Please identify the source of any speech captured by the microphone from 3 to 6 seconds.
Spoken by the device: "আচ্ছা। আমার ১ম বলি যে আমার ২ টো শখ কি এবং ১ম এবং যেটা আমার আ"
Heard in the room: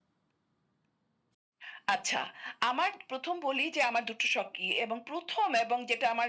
echo only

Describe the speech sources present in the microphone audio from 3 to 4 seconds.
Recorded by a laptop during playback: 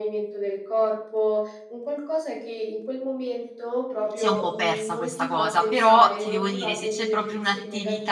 echo only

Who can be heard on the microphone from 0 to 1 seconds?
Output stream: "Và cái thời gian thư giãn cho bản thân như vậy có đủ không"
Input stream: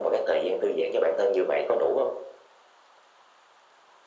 echo only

